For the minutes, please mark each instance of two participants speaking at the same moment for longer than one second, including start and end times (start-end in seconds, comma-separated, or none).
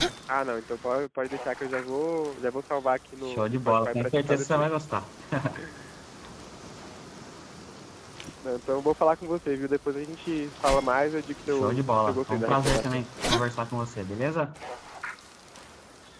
3.2-4.7, 11.5-13.0